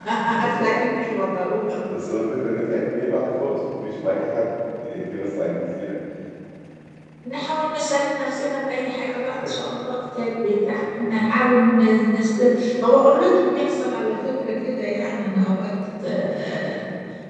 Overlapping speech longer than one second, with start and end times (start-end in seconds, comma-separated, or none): none